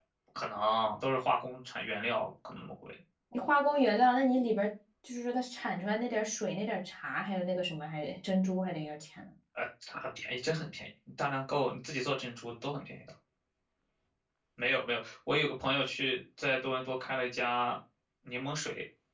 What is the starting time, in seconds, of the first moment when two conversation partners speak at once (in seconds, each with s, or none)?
none